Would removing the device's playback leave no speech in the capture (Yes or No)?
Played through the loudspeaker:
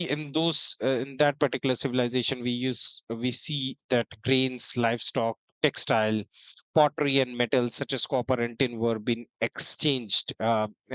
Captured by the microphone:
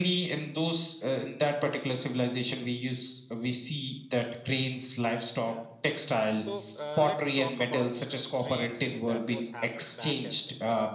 No